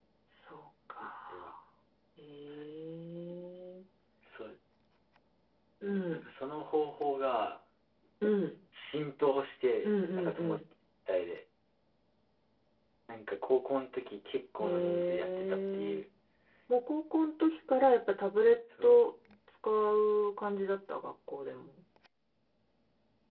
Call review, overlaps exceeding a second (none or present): present